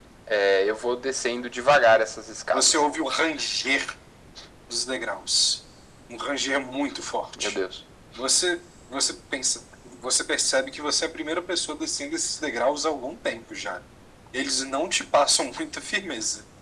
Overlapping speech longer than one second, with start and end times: none

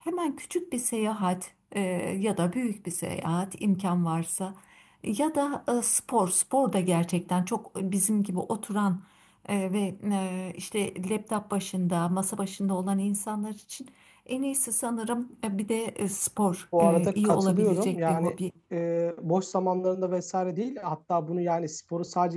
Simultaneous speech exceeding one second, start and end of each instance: 16.8-18.4

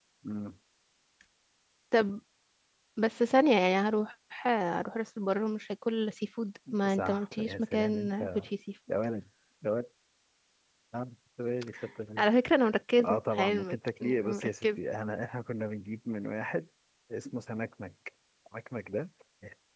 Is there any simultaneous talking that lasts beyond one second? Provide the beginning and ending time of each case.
6.8-8.2, 13.0-14.8

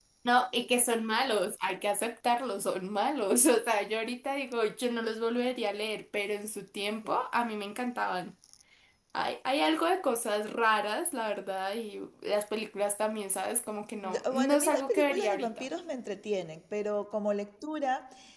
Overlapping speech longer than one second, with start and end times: 14.0-15.7

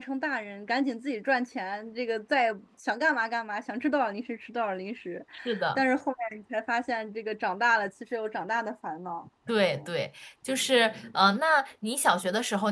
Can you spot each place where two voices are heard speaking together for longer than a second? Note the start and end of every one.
none

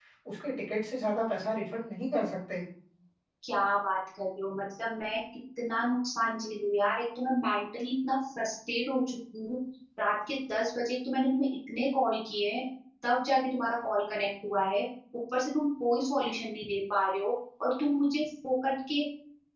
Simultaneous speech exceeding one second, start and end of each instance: none

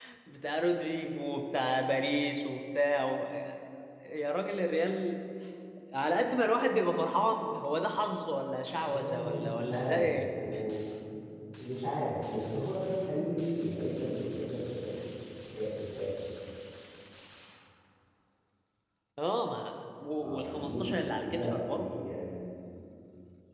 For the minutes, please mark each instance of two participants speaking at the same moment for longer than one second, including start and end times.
8.8-10.3, 20.2-22.0

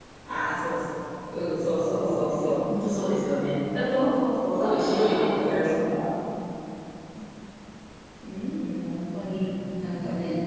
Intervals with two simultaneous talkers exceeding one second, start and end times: 4.5-6.0

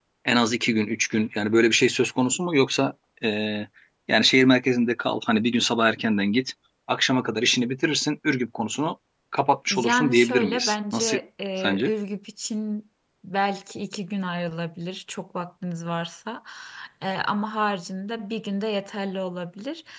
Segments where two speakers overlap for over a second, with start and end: 9.7-11.2

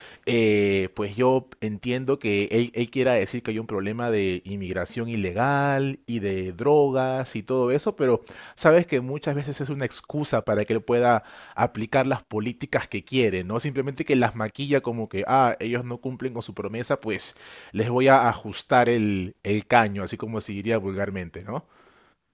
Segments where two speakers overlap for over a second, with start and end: none

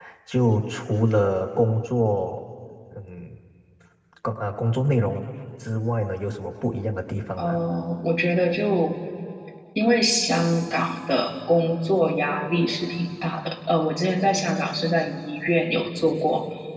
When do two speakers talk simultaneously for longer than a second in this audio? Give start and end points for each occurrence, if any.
none

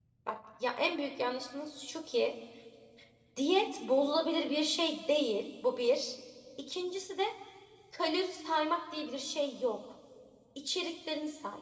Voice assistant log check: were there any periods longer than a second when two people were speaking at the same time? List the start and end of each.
none

